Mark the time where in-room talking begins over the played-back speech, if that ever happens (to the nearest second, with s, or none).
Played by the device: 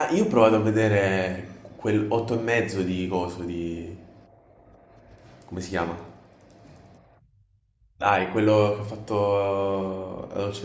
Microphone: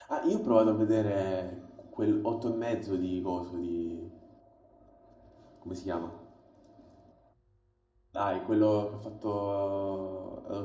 none